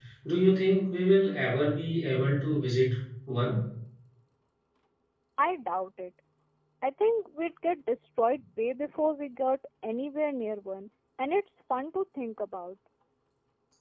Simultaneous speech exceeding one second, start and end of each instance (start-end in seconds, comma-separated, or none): none